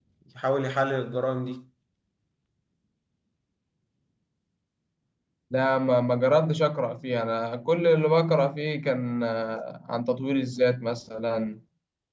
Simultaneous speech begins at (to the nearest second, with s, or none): none